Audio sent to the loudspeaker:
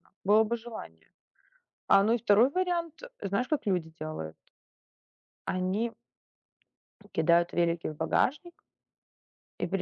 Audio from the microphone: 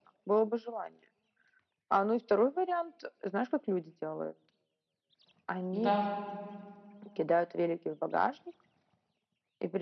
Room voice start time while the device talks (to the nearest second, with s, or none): 6 s